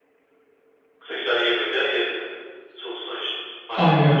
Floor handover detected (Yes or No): Yes